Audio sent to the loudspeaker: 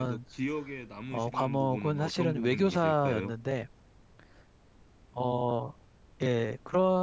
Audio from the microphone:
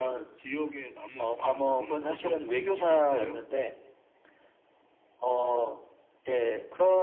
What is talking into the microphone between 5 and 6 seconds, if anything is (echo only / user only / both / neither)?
echo only